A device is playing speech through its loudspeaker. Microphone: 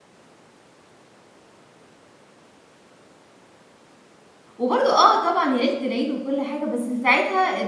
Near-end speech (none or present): present